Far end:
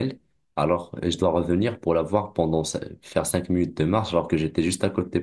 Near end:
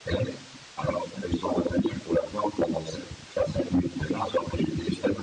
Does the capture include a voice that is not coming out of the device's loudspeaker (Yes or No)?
No